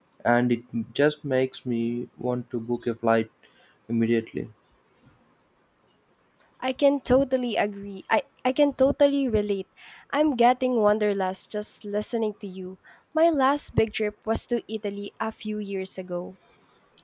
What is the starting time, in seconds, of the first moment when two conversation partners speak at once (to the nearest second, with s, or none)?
none